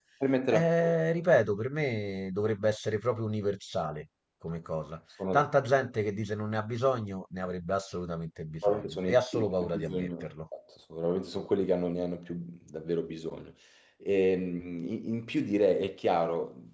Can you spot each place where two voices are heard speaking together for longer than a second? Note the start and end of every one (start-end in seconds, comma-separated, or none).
8.6-10.3